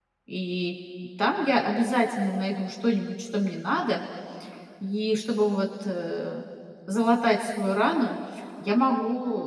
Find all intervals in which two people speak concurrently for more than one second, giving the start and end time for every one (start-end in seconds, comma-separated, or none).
none